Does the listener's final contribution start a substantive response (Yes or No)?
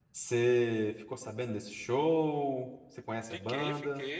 Yes